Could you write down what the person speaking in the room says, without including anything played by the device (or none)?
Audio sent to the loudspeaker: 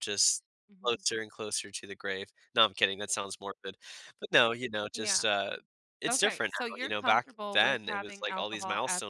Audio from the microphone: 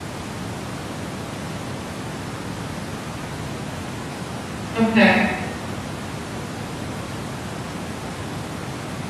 Okay.